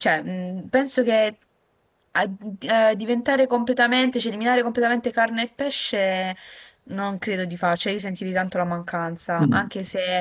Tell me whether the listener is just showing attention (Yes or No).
Yes